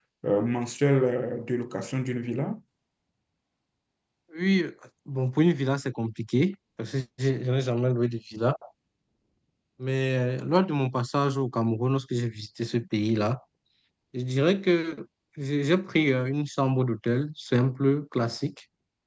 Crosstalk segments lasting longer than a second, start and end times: none

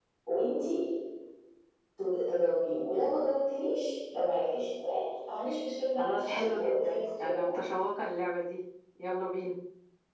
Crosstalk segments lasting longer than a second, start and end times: 6.0-7.7

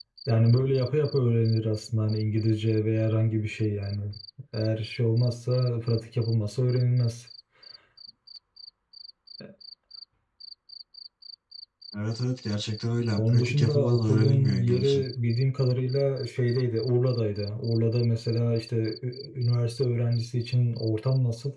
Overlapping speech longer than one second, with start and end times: 13.2-15.0

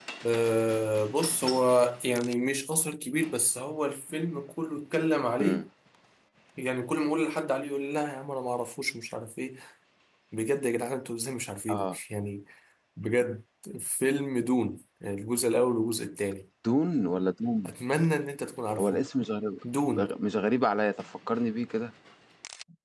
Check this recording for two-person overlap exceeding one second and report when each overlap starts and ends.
none

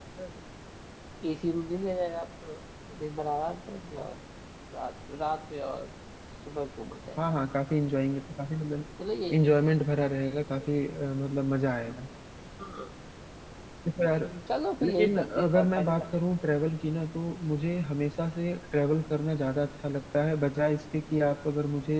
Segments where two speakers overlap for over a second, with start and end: 14.8-16.1

